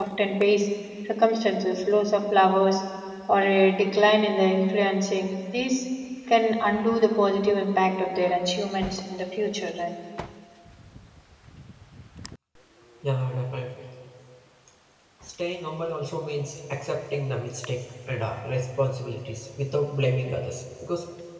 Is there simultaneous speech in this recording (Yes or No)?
No